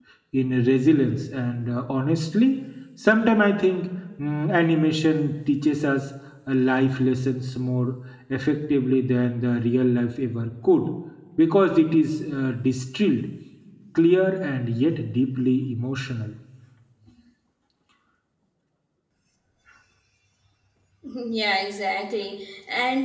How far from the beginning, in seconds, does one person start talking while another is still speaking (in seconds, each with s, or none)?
none